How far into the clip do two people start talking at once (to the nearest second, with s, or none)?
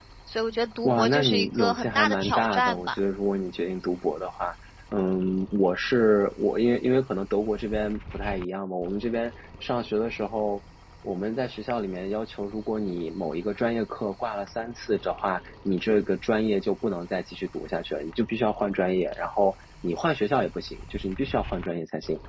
1 s